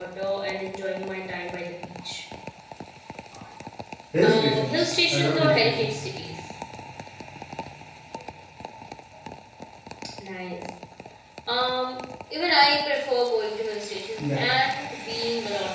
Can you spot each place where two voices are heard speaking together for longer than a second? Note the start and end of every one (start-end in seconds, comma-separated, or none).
4.2-6.0